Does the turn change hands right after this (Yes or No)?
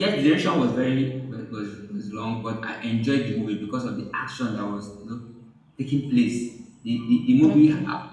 No